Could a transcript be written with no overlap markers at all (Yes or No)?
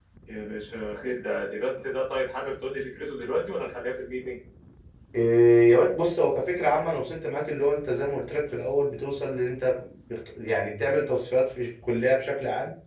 Yes